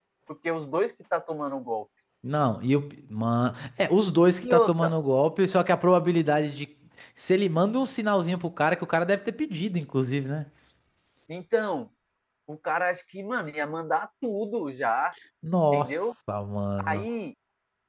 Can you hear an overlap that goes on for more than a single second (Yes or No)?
No